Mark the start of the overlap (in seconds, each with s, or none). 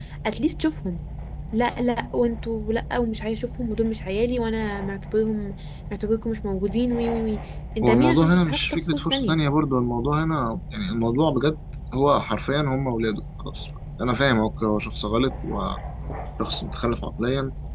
7.8 s